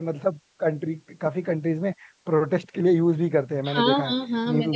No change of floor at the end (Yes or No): No